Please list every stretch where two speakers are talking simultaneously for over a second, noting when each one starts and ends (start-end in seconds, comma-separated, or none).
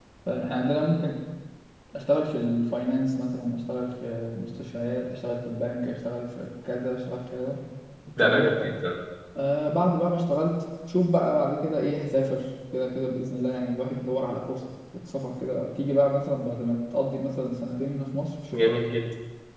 none